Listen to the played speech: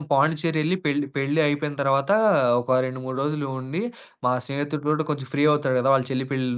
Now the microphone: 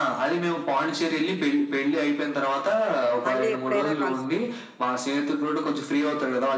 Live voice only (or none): మళ్ళీ ఎప్పుడైనా కలుసుకొని.